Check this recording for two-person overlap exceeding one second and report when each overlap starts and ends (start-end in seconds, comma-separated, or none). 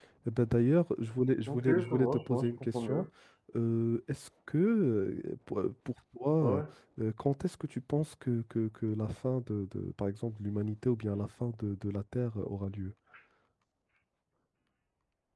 1.5-3.0